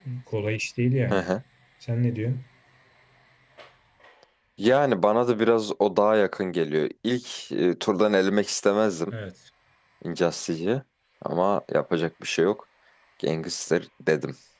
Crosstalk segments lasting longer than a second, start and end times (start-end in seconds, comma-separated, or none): none